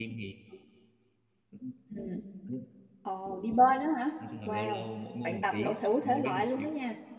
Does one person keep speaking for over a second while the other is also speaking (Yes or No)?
Yes